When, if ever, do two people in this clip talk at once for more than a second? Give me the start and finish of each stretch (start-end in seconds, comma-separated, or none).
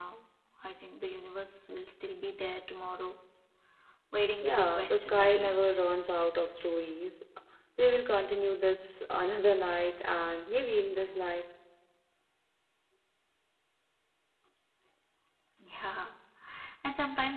4.4-5.6